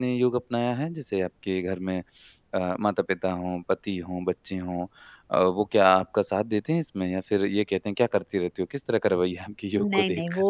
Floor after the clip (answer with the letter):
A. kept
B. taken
B